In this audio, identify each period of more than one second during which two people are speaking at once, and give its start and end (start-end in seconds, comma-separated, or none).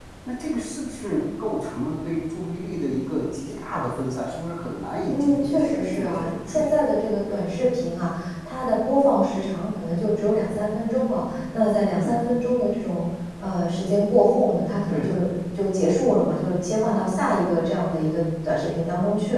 5.1-6.9